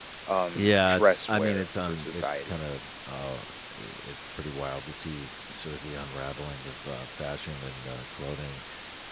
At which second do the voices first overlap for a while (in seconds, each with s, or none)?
0.6 s